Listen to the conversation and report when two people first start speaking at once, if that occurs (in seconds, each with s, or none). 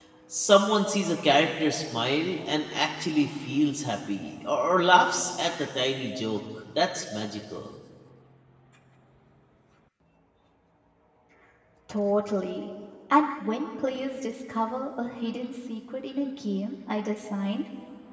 none